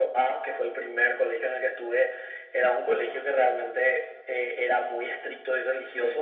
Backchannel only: Yes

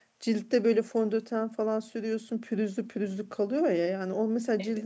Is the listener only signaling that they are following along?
Yes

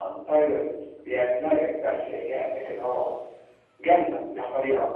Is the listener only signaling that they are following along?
No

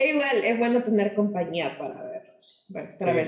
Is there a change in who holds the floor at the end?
No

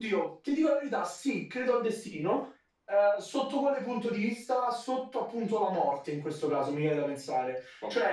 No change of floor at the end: Yes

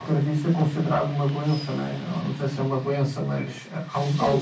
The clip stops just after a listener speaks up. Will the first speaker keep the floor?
No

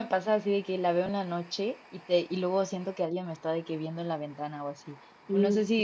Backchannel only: Yes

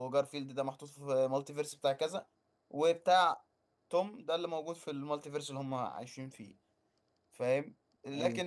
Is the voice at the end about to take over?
No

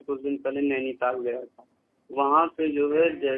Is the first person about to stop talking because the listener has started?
No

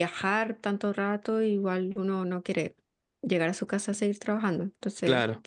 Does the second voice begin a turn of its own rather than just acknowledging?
No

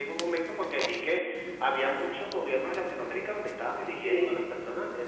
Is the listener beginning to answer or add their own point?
No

